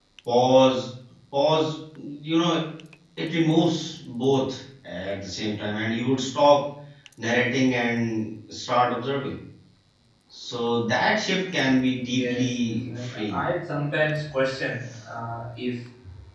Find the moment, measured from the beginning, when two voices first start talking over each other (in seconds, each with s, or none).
12.0 s